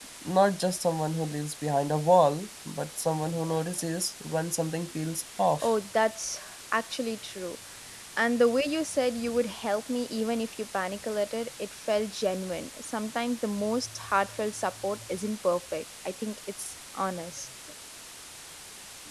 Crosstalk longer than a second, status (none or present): none